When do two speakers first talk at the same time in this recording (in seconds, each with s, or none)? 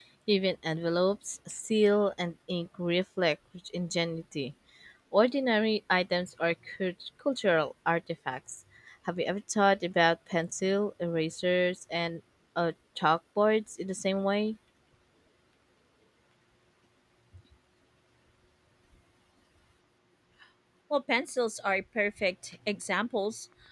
none